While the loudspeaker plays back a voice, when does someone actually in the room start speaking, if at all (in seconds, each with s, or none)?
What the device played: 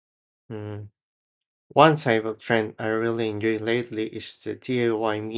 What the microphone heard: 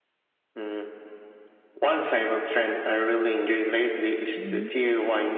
4.3 s